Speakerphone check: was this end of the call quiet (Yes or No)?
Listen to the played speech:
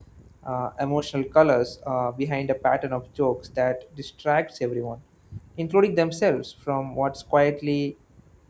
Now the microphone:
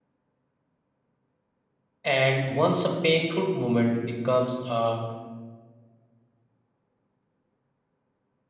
No